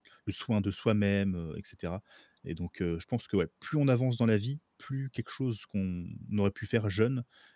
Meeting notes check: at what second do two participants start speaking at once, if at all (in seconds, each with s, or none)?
none